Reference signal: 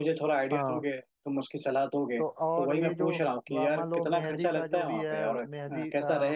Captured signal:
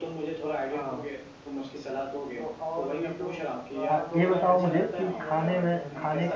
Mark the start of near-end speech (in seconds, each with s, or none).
3.9 s